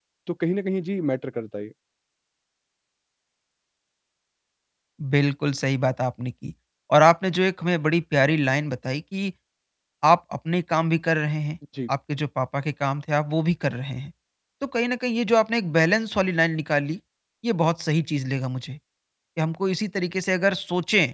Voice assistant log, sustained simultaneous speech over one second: none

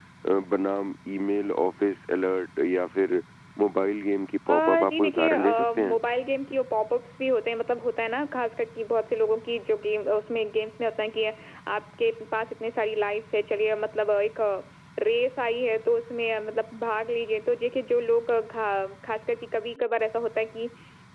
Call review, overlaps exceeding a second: present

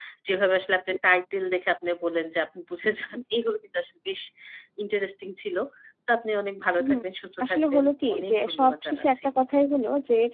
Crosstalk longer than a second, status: present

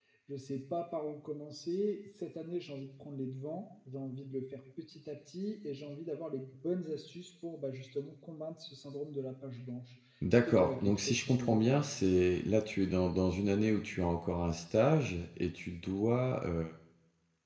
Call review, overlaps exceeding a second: present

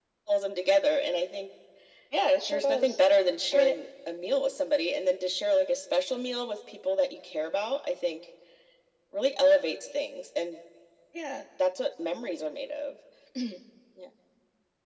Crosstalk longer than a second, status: none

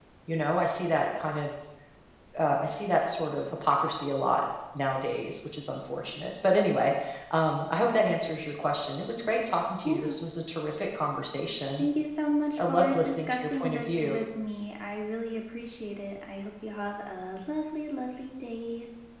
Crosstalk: present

